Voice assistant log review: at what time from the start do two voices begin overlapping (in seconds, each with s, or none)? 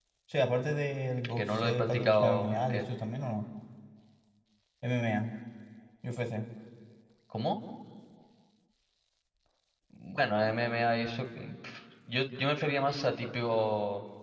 1.2 s